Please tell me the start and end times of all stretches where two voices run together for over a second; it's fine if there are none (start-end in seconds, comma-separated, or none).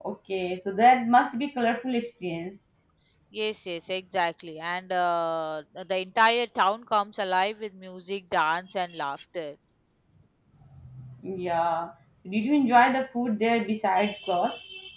none